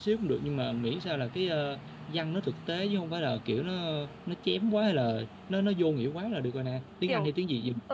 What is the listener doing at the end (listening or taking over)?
taking over